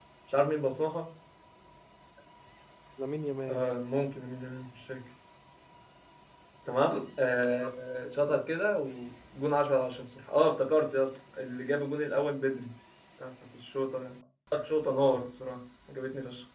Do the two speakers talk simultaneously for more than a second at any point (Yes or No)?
No